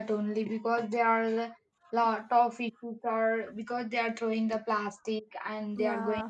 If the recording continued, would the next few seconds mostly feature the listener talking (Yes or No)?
No